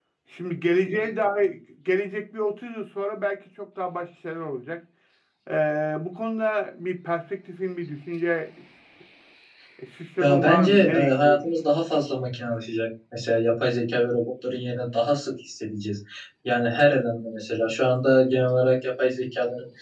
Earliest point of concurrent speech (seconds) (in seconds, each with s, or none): 10.2 s